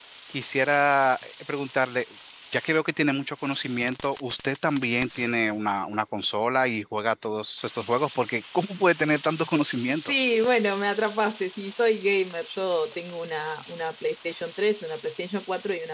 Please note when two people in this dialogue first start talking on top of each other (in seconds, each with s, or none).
none